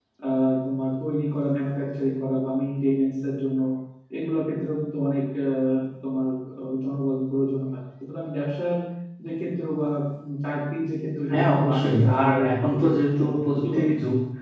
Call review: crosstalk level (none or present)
present